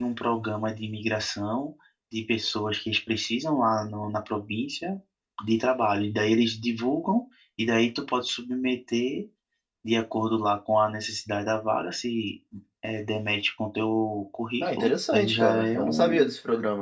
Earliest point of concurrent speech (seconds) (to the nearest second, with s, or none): 15 s